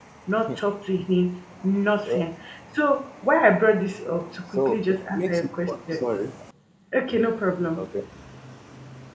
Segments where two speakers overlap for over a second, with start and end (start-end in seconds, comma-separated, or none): 4.5-6.0